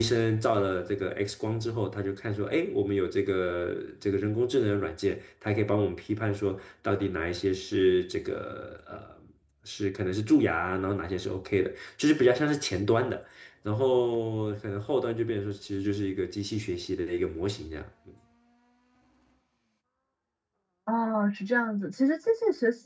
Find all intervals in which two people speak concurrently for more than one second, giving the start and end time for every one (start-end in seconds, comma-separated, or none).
none